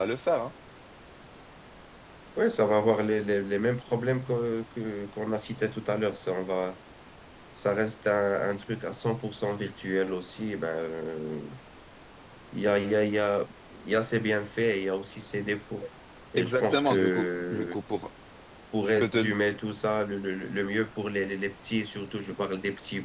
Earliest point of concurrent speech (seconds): 16.4 s

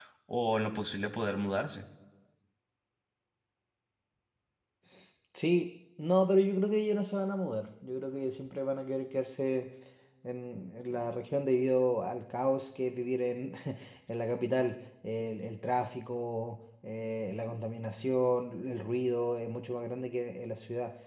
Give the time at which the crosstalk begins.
none

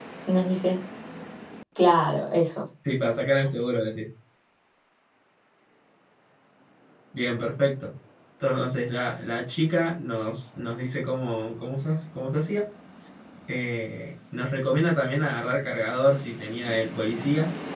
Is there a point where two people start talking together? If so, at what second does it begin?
none

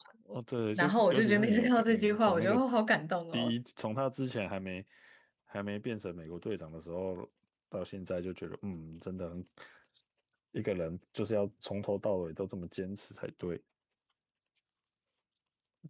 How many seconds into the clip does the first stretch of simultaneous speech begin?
0.8 s

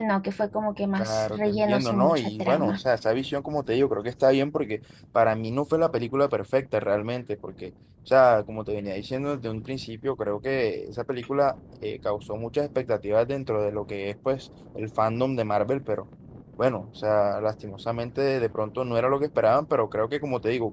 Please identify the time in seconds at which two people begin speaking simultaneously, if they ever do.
1.0 s

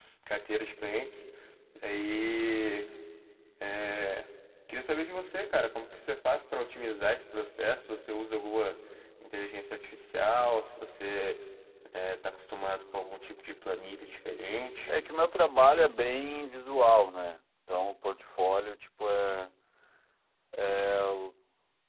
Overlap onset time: none

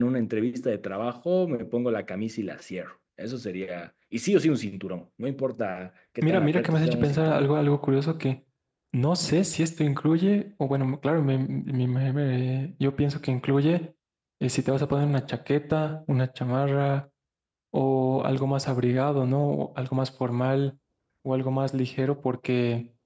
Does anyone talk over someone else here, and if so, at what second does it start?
6.2 s

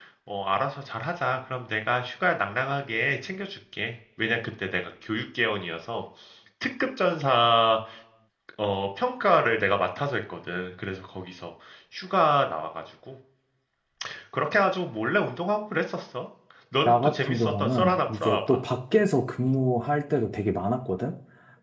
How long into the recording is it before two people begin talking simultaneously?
16.8 s

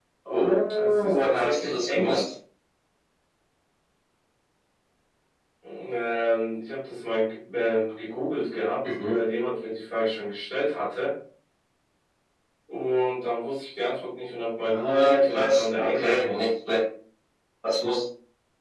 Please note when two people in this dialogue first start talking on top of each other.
0.7 s

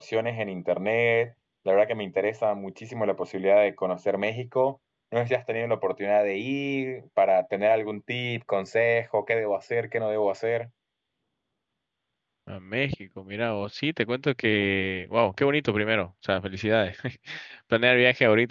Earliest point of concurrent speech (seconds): none

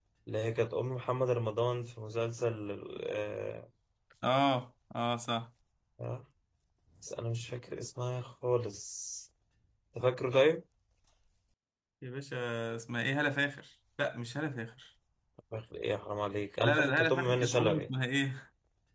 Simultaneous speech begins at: 16.6 s

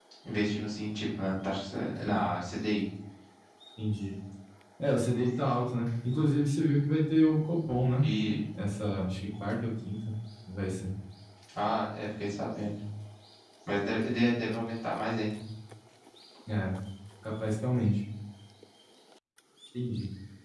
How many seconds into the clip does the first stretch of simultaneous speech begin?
none

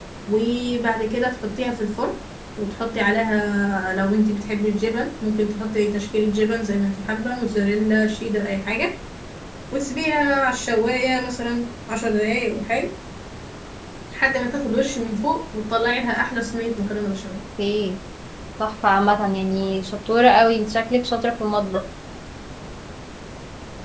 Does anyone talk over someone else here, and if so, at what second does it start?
none

